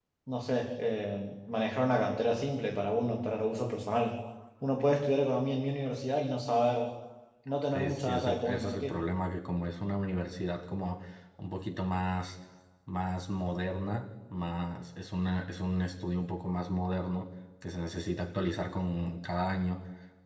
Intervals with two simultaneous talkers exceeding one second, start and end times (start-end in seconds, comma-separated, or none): 7.7-9.0